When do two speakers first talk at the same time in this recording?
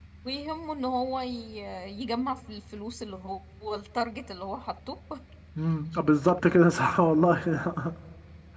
none

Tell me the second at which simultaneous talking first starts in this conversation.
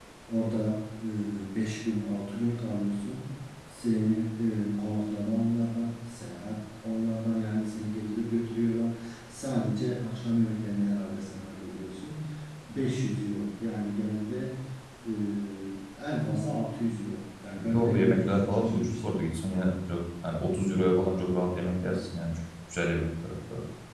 17.6 s

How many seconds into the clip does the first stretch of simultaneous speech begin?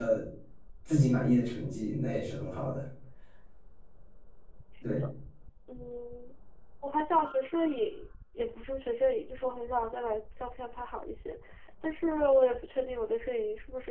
none

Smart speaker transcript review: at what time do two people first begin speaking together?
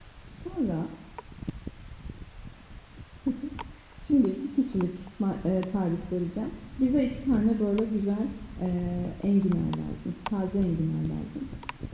none

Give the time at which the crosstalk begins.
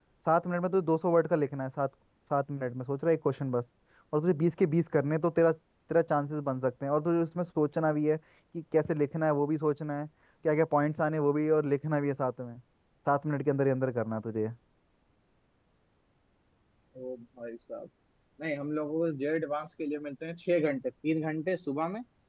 none

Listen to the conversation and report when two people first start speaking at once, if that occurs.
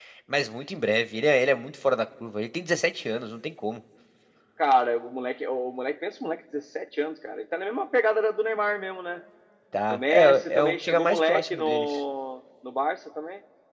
9.9 s

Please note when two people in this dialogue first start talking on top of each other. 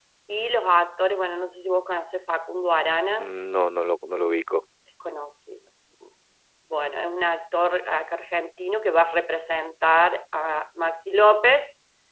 none

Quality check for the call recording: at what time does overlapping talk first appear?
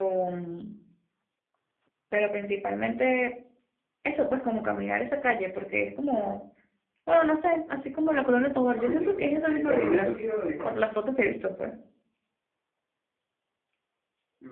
8.8 s

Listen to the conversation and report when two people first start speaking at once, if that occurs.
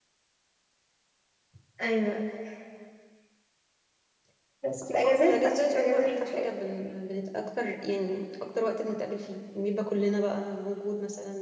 5.0 s

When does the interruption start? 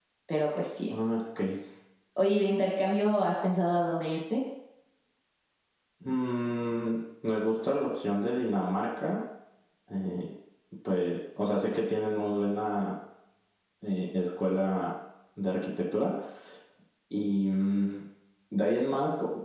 none

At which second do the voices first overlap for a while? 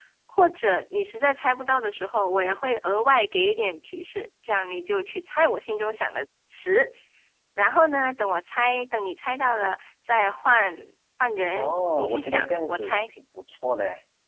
11.5 s

